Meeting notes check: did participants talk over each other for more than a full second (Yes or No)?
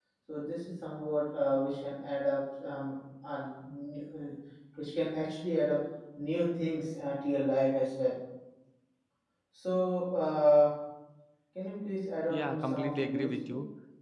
Yes